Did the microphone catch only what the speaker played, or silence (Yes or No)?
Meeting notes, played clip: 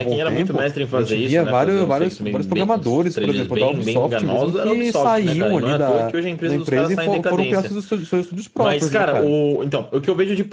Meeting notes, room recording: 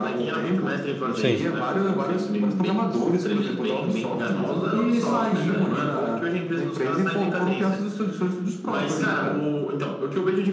No